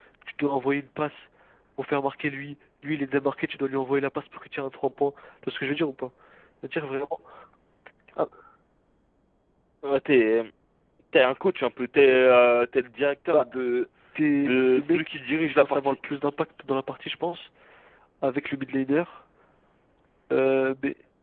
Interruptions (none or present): present